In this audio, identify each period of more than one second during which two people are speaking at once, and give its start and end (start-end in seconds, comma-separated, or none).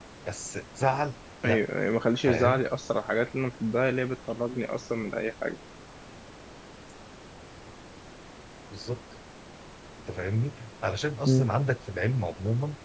none